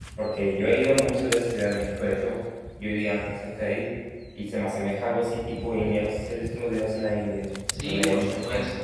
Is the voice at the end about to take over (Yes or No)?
Yes